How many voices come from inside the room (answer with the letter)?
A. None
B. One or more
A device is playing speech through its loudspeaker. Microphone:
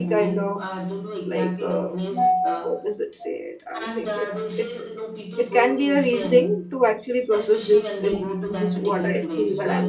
B